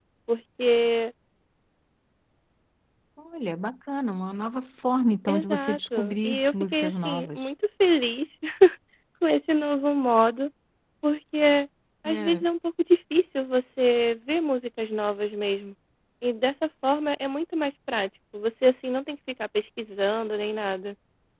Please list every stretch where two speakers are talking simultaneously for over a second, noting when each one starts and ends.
5.3-7.5

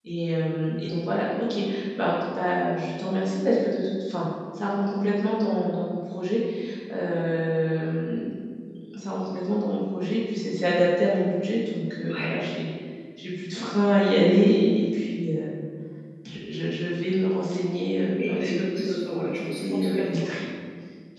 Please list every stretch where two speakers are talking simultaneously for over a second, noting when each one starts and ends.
18.2-20.3

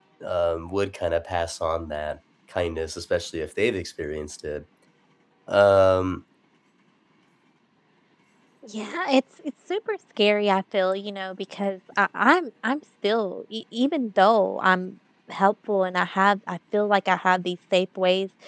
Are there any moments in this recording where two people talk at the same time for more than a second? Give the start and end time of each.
none

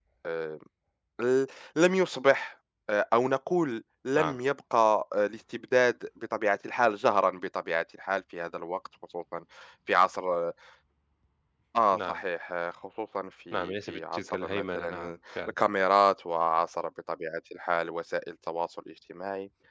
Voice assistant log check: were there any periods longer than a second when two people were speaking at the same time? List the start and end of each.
13.5-15.5

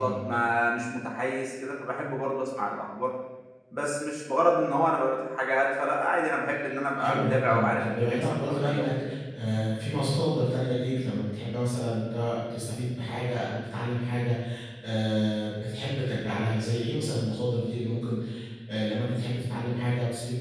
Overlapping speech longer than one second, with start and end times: 7.0-9.1

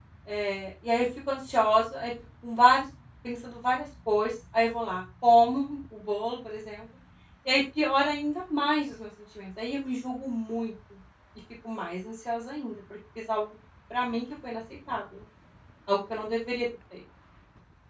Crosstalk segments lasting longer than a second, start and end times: none

